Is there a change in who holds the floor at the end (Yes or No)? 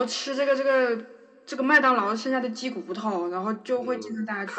Yes